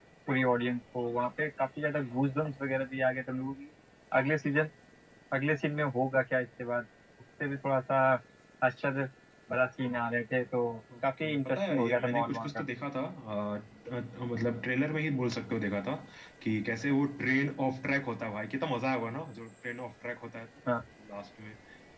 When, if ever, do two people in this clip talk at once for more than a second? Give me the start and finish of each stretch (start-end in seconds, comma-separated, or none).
11.2-12.5